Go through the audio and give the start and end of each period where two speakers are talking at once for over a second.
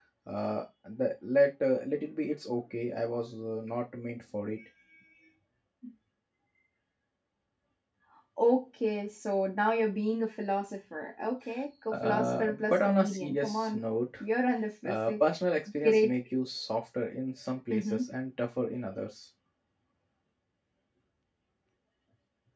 11.9-13.8

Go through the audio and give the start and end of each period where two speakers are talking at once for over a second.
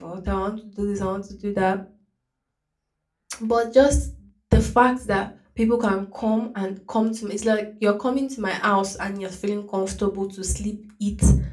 none

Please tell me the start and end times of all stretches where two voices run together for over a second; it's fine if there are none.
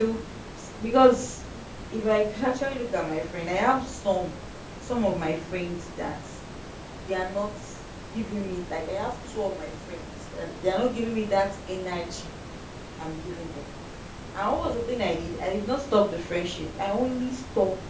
none

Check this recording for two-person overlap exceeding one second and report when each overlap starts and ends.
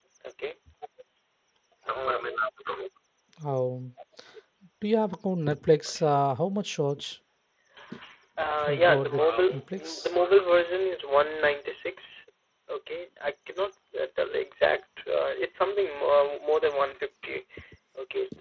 8.6-10.1

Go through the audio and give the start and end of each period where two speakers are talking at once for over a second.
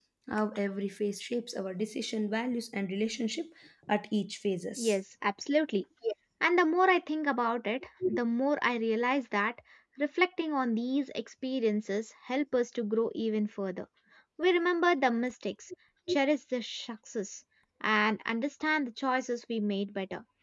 none

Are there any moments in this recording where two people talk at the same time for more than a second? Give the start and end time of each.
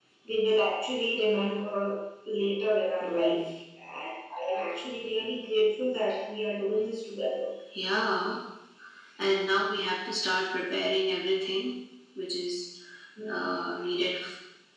none

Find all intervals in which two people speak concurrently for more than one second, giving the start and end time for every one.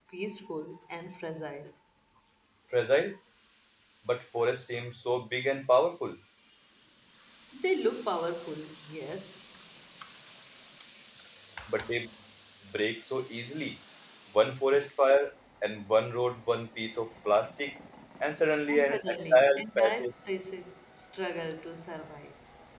18.7-20.1

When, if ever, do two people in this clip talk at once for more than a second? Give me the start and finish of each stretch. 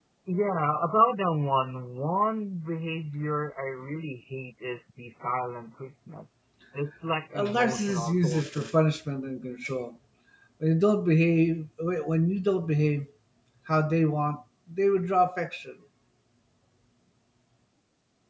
7.3-8.7

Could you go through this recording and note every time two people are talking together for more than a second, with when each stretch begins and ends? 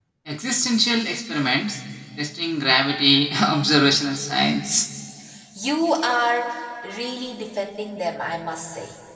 none

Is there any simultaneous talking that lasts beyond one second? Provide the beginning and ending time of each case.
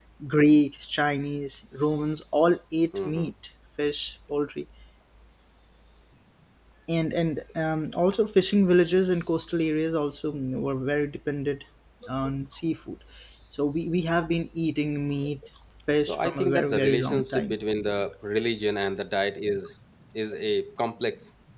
16.0-17.6

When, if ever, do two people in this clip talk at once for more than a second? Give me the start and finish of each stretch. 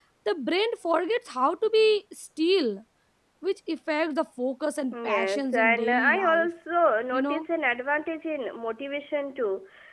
5.1-6.5

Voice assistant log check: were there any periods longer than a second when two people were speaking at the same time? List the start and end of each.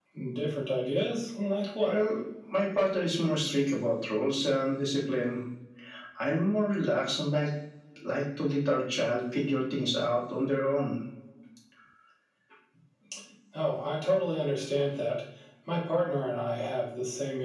none

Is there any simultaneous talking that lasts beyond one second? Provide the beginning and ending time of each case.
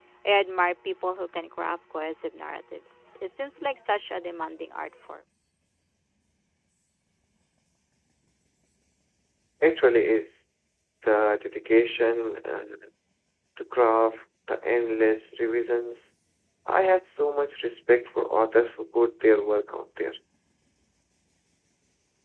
none

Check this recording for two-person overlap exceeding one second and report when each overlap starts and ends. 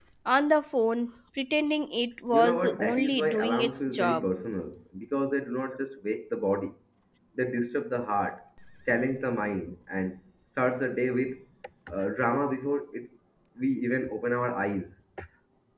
2.3-4.3

